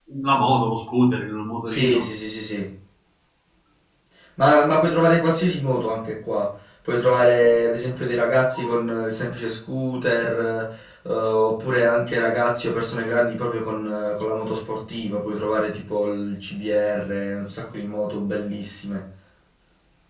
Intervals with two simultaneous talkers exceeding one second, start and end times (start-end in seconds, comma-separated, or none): none